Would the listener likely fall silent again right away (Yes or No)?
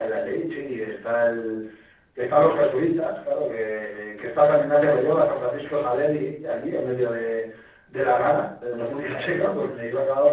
Yes